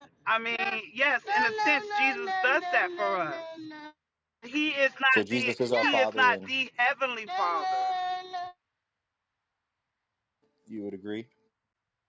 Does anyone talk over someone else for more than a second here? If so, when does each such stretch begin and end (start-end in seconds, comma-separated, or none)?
5.1-6.5